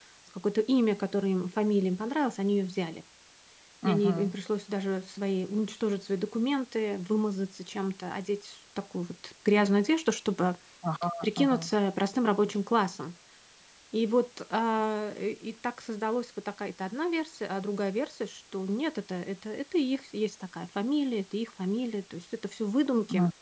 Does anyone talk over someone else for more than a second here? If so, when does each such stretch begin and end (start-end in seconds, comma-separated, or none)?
none